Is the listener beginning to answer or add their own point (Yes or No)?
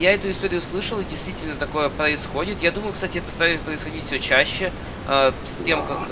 No